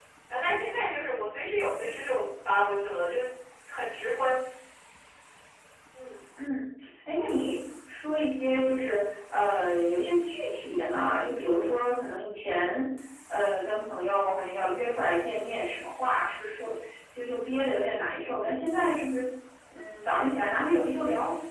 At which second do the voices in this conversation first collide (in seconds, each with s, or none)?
none